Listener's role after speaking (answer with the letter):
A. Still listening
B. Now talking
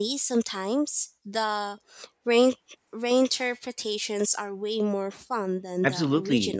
B